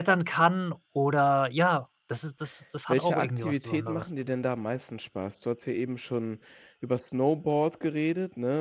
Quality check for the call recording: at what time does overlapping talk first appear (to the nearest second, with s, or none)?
3 s